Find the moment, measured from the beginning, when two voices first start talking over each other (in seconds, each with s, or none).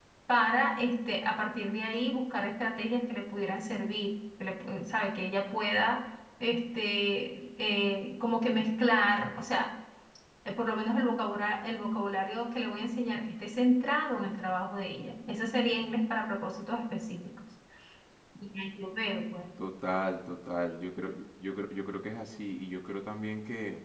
none